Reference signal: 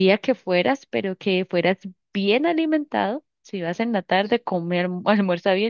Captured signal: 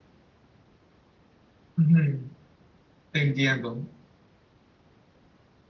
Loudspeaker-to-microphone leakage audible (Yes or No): No